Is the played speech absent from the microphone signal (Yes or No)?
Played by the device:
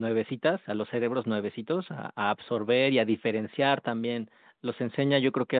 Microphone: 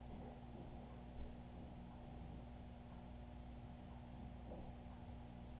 Yes